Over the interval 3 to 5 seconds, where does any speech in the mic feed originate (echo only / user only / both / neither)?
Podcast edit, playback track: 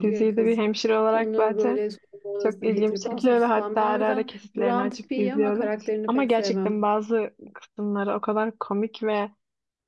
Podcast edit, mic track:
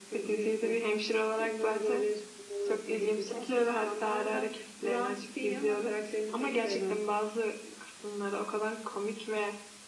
echo only